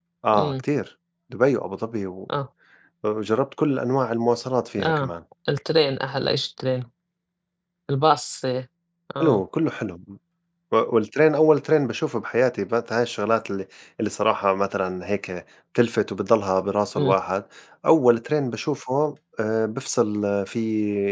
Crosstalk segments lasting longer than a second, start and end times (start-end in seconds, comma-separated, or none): none